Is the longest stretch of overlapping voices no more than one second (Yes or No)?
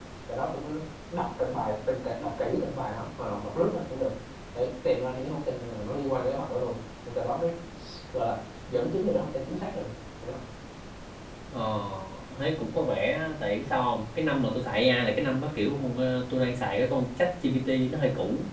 Yes